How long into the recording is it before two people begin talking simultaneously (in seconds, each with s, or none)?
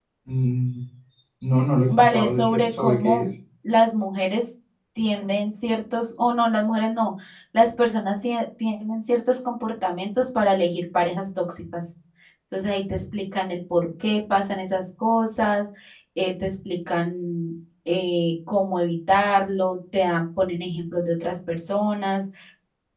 1.9 s